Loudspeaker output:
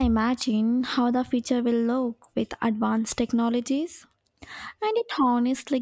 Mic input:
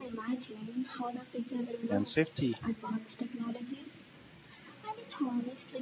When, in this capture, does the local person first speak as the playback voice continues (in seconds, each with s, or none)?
1.9 s